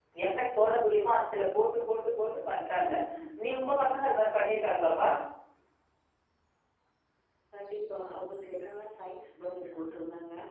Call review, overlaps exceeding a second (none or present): none